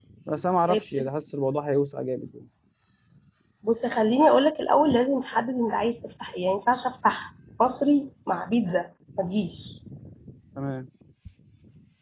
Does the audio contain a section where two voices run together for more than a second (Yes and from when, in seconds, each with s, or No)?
No